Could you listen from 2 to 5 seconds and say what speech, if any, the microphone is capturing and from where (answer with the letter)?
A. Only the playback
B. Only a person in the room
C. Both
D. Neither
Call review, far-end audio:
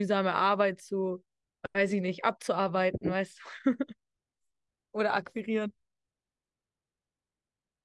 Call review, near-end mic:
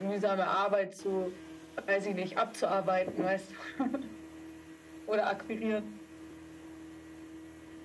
A